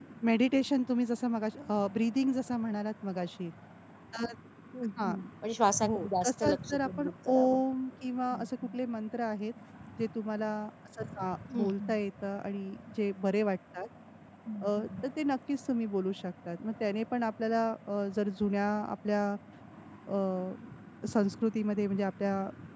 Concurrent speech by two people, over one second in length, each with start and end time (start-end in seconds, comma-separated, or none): 5.9-7.6